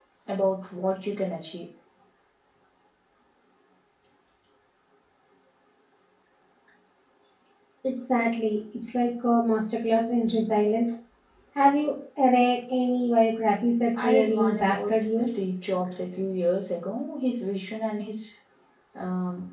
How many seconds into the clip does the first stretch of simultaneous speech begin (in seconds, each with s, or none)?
13.9 s